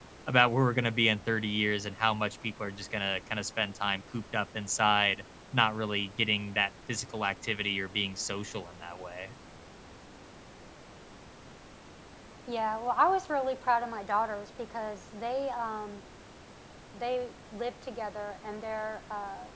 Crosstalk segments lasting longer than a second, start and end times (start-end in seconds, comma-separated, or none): none